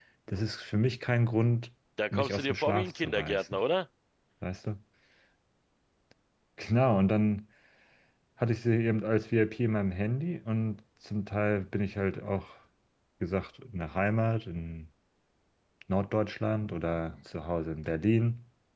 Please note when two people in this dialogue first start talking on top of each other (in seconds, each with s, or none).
2.1 s